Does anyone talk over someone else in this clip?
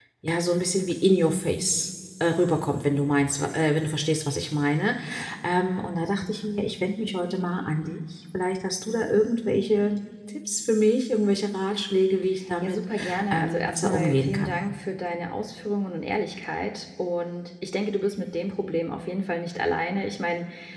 Yes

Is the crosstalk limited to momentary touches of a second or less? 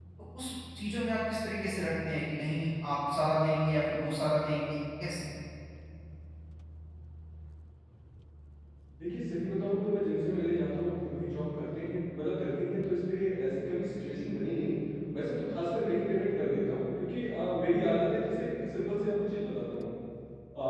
Yes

